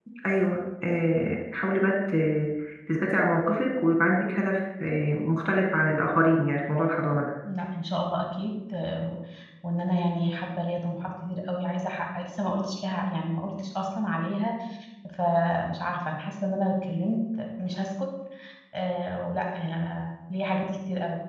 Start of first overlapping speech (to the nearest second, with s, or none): none